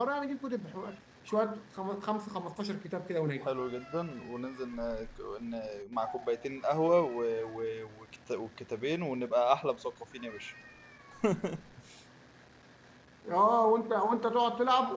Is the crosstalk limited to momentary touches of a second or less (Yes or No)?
Yes